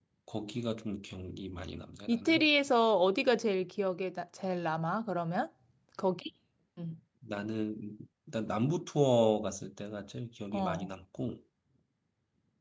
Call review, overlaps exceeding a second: none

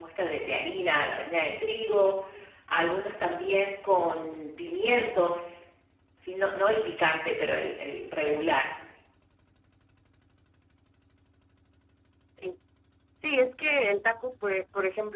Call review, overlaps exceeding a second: none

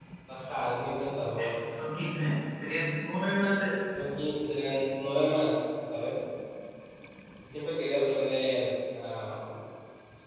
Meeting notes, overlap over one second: none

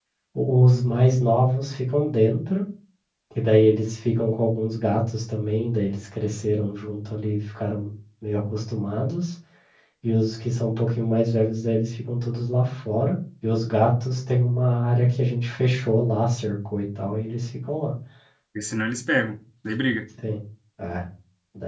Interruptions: none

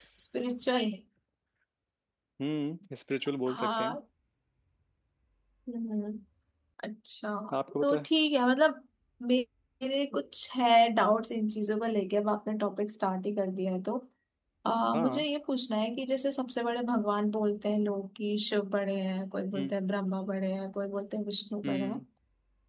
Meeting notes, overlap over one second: none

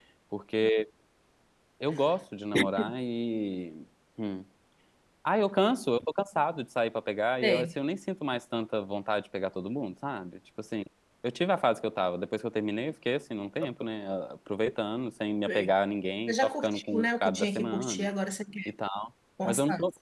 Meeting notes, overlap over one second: present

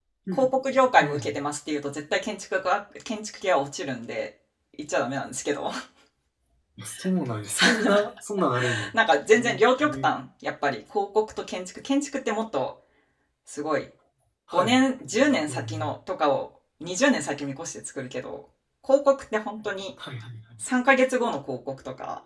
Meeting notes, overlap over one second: none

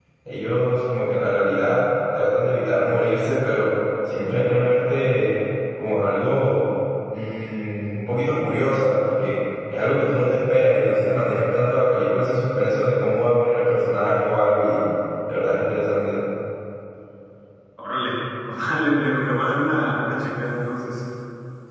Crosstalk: none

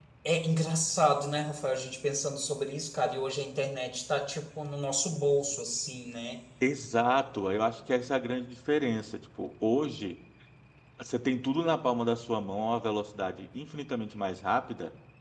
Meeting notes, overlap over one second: none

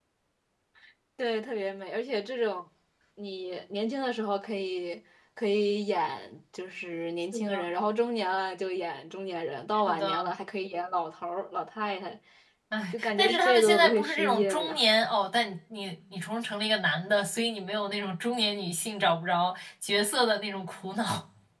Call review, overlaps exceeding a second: present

